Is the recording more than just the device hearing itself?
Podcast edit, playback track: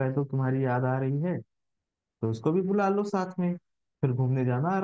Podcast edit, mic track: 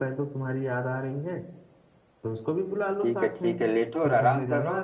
Yes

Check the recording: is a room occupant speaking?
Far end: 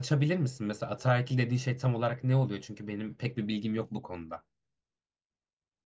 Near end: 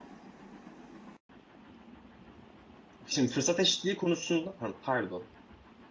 Yes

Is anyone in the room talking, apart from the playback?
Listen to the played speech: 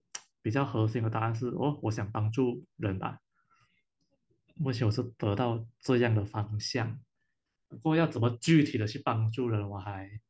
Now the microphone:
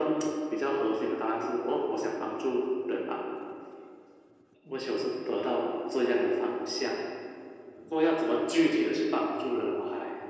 No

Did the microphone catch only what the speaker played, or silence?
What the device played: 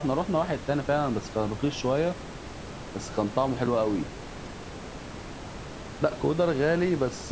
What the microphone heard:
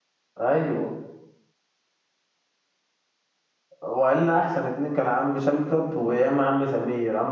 No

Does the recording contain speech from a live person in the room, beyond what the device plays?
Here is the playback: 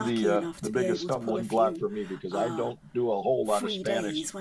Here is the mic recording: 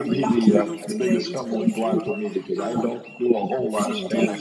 No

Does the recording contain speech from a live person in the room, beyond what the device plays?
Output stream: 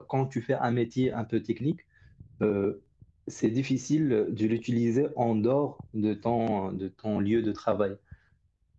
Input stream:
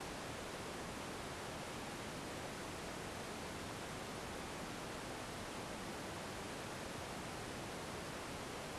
No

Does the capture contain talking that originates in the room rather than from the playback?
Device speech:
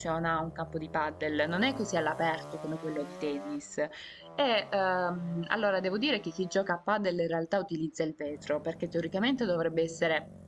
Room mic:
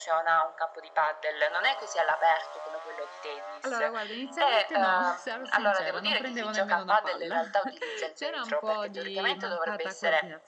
Yes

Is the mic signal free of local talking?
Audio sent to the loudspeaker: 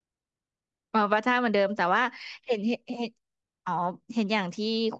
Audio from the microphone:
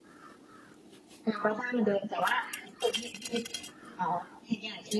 Yes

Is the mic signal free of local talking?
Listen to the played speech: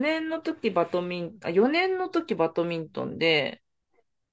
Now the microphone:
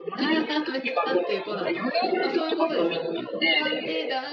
No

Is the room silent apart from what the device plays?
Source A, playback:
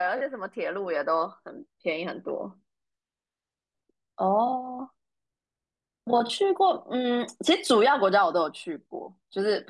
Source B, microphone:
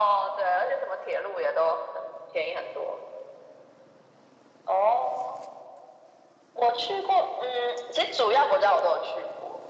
Yes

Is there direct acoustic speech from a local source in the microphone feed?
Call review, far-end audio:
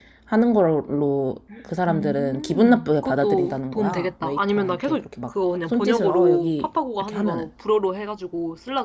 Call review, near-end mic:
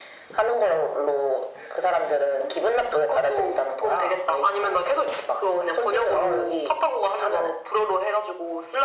No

